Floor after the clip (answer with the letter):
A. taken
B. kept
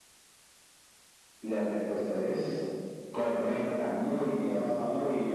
A